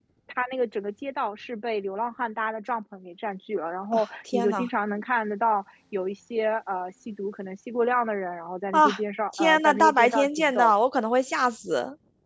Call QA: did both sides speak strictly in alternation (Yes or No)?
No